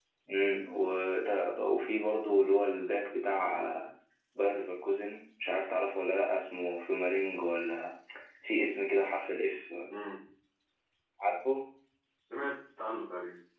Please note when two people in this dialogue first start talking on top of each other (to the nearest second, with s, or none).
none